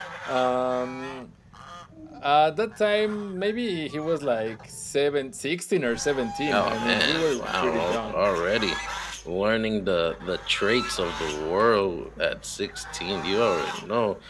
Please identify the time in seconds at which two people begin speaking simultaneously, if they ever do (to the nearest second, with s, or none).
6 s